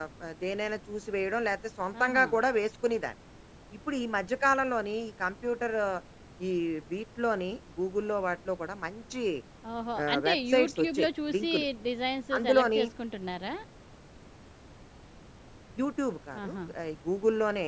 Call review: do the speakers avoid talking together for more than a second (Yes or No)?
No